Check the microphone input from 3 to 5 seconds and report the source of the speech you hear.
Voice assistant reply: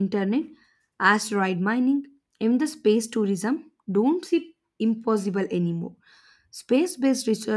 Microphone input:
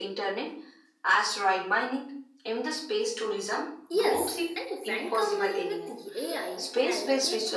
both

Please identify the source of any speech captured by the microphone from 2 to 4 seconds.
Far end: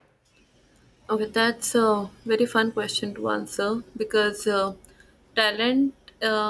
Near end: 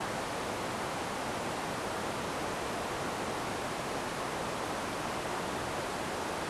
neither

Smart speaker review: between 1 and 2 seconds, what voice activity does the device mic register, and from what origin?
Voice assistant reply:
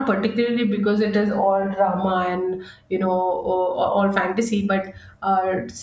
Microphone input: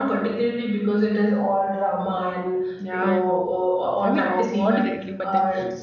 echo only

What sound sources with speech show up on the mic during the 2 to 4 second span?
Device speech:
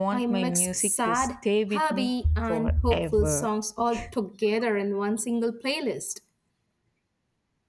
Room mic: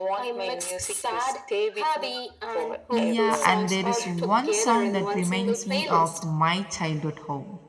both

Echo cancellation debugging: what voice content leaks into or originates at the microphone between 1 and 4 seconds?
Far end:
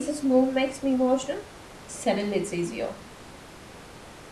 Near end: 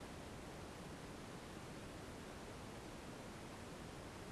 neither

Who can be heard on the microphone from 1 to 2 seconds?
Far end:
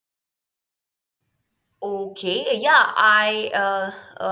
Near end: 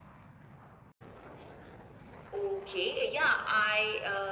neither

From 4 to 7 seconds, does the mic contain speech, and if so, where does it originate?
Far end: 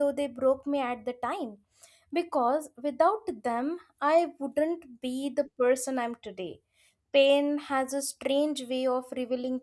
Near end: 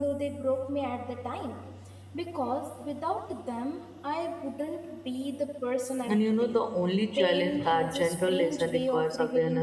both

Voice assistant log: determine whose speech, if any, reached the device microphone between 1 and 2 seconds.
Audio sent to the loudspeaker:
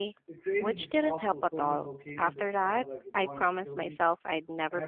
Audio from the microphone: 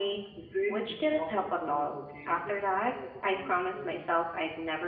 echo only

